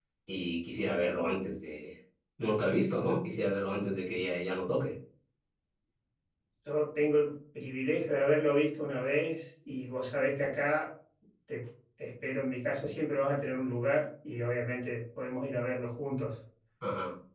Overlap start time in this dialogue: none

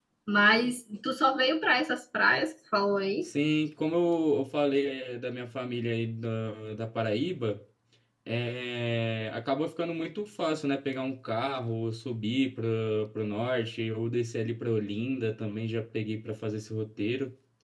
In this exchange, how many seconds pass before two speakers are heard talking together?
none

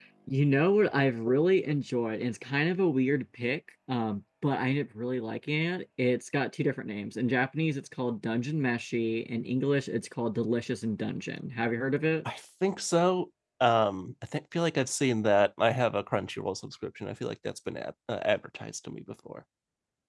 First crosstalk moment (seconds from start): none

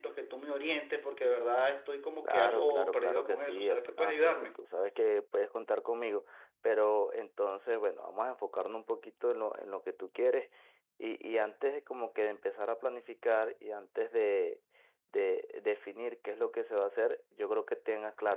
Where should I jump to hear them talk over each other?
2.2 s

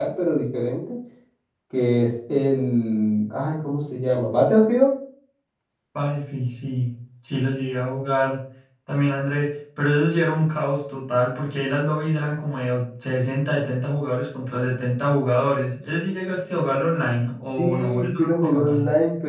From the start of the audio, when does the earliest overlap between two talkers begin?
17.6 s

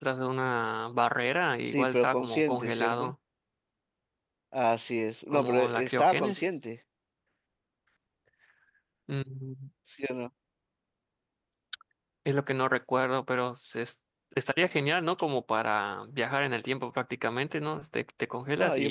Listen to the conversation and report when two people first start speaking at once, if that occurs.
1.7 s

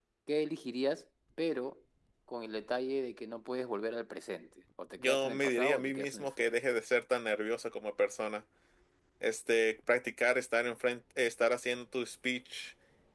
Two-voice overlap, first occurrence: 5.0 s

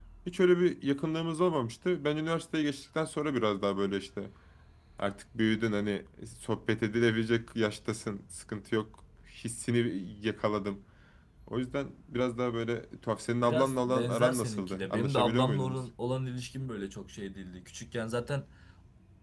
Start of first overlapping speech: 13.4 s

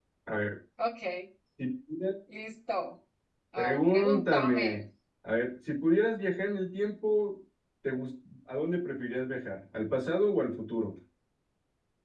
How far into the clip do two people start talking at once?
3.6 s

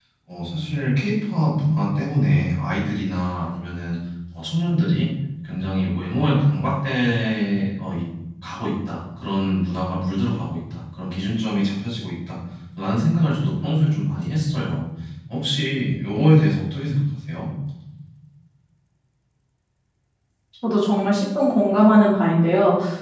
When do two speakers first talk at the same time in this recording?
none

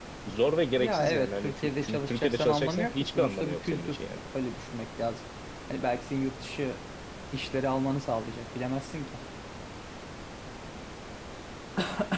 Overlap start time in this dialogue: 0.8 s

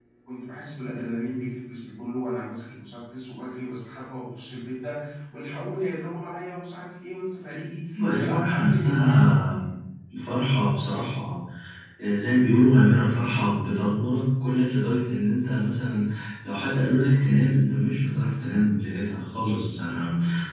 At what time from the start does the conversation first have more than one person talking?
7.9 s

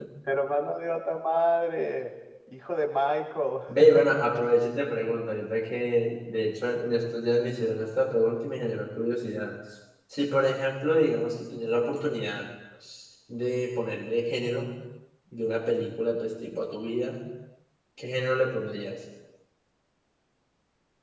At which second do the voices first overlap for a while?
none

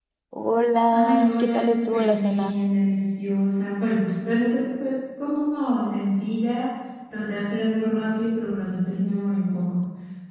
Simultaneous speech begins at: 0.9 s

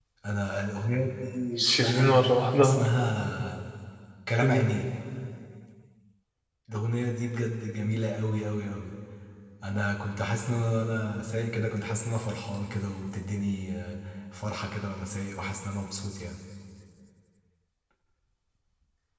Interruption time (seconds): 1.6 s

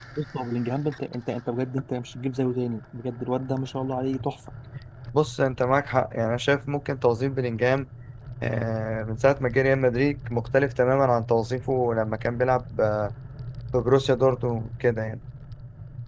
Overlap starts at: none

